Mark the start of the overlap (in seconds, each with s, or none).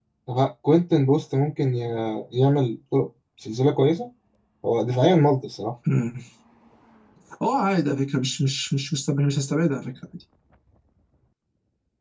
none